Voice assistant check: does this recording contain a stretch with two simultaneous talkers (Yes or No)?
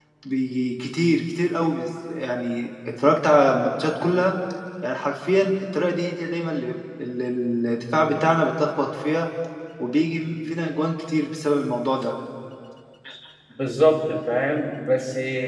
No